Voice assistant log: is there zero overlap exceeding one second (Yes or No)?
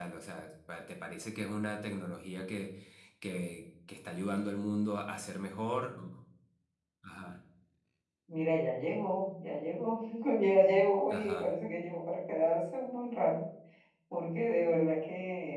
Yes